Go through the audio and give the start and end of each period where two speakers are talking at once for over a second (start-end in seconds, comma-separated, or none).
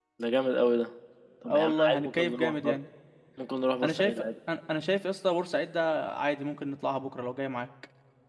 1.5-2.8